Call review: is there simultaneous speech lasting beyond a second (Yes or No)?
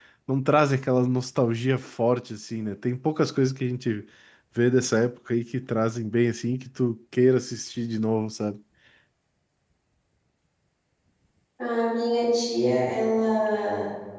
No